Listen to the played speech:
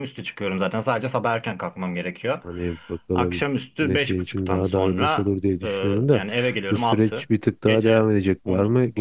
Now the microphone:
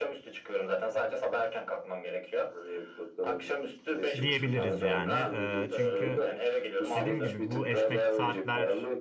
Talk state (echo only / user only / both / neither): both